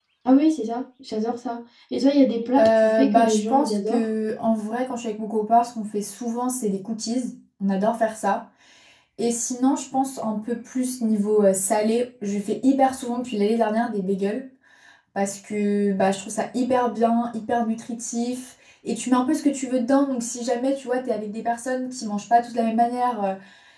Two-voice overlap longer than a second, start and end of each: 2.6-4.0

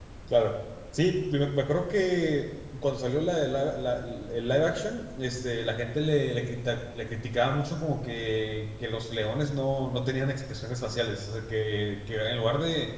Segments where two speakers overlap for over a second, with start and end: none

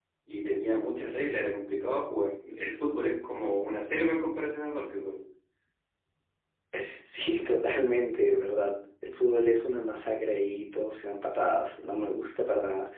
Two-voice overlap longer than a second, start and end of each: none

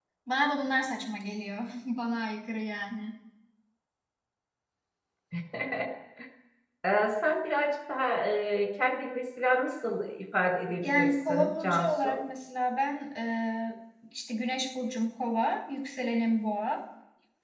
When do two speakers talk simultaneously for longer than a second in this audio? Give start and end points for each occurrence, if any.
10.8-12.2

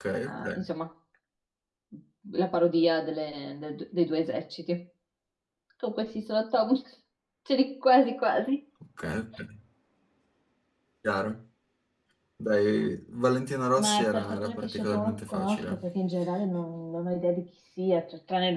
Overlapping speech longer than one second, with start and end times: 13.8-15.8

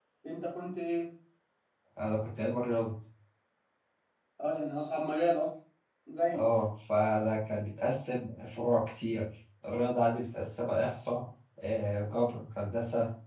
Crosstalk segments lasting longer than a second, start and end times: none

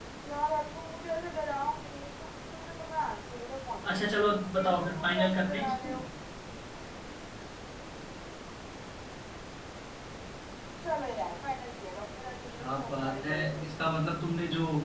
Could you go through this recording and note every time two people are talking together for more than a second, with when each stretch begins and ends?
4.6-5.9, 12.6-14.1

